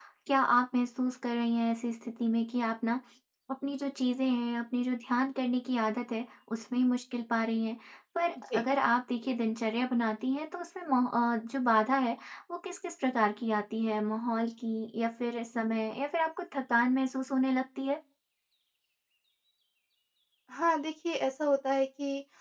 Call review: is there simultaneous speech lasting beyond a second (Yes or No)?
No